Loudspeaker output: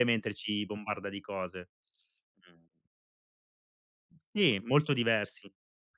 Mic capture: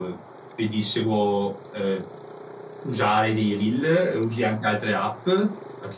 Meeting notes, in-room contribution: present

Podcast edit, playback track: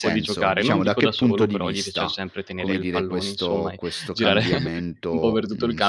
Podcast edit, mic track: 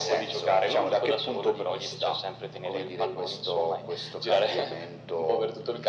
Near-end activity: none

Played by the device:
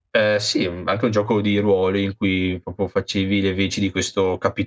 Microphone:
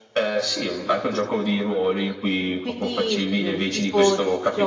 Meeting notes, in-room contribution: present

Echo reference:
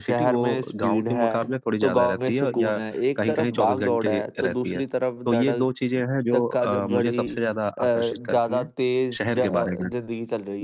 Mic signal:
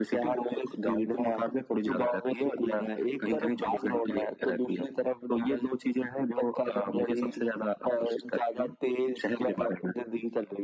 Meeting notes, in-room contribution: none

